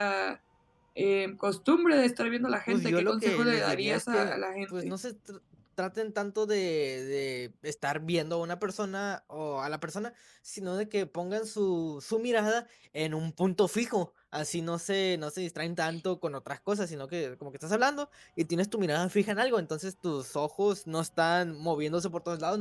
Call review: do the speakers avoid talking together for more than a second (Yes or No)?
No